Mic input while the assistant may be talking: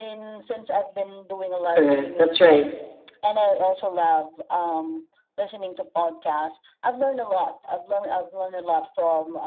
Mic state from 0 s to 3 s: both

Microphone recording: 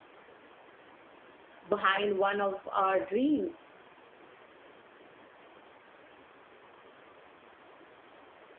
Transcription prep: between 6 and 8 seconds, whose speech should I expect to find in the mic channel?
neither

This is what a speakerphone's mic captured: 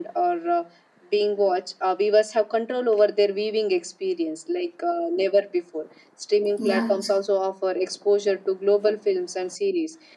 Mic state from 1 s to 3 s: echo only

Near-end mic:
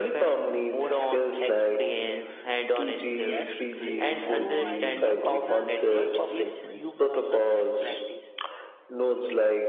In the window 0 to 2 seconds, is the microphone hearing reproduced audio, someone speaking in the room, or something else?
echo only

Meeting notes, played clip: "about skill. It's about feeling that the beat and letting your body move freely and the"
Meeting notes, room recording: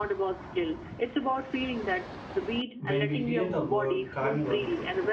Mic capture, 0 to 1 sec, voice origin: echo only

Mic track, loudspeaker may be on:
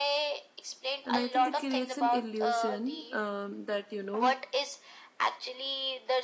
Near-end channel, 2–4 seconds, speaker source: both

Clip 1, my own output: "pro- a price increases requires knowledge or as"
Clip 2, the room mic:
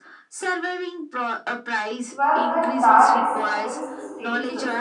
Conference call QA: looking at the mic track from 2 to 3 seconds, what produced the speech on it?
both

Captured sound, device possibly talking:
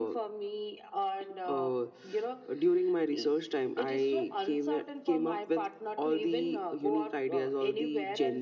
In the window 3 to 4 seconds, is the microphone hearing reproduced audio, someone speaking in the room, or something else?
echo only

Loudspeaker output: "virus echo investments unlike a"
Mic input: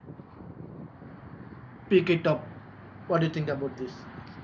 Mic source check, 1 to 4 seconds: user only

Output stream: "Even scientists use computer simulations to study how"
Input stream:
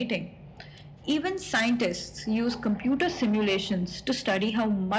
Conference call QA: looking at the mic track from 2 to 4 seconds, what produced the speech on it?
echo only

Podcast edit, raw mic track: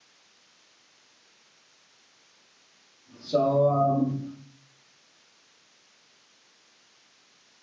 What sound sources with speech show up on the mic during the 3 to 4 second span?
user only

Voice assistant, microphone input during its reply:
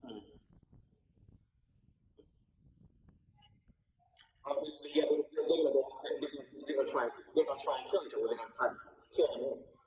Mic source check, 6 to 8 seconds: echo only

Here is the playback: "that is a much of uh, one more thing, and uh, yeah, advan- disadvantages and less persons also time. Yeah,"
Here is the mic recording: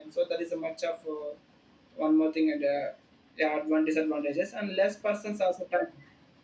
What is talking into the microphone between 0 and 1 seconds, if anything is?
echo only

